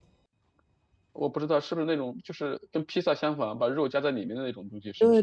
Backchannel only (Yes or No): No